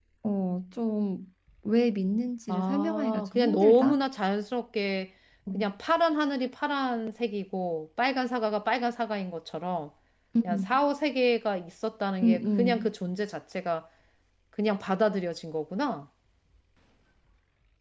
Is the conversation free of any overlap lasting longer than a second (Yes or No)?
No